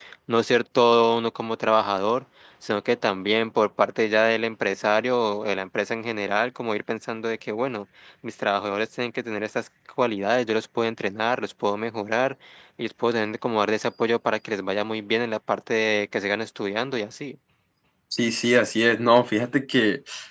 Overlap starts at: none

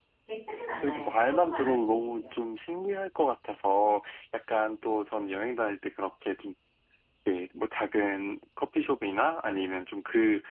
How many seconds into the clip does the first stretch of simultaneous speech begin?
0.8 s

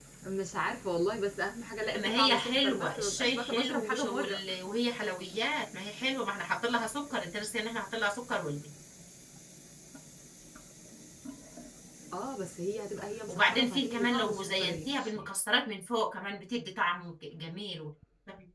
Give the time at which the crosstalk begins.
1.8 s

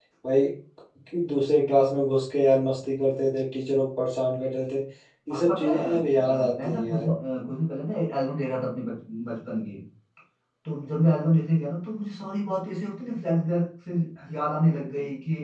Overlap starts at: 5.3 s

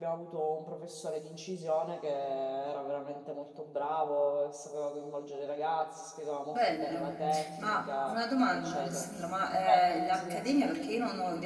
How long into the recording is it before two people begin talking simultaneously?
6.5 s

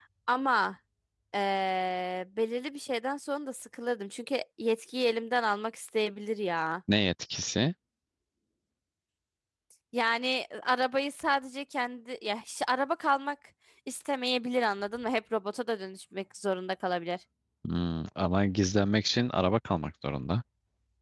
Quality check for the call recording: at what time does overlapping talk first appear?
none

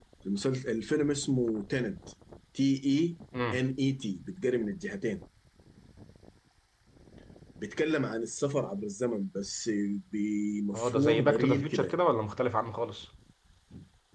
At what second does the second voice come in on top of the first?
10.7 s

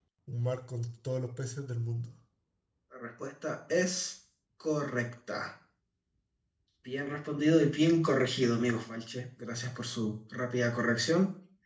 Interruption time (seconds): none

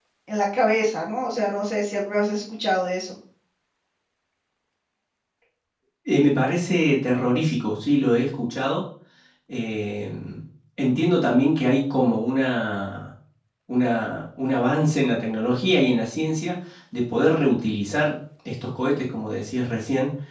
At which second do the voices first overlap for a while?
none

